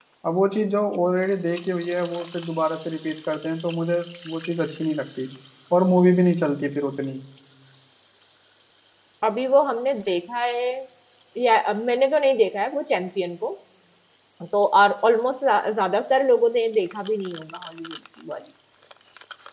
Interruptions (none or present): none